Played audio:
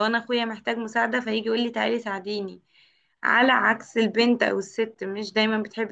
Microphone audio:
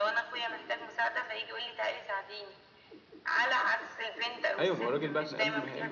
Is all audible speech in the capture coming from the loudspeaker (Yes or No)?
No